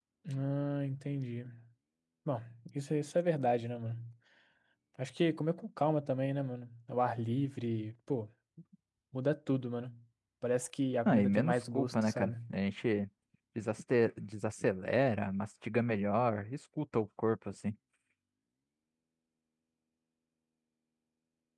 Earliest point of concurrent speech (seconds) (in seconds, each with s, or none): 11.1 s